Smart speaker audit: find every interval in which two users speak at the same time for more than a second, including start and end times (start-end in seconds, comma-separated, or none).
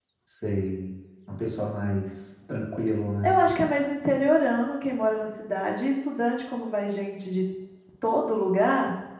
none